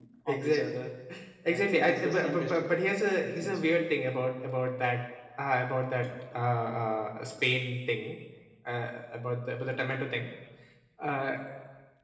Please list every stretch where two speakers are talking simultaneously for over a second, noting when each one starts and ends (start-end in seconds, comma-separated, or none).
1.5-2.8